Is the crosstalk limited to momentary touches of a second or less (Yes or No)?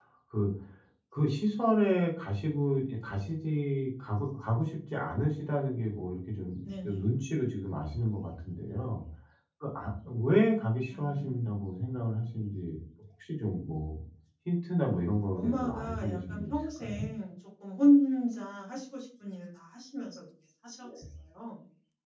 No